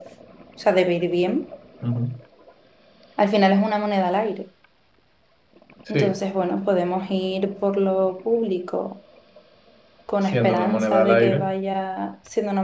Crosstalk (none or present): present